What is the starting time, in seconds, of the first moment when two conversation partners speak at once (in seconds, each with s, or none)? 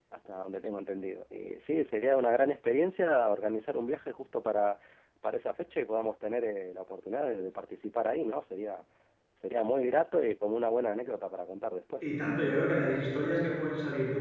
none